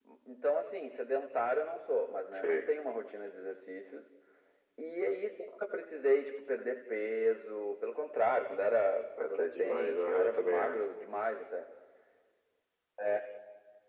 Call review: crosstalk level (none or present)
present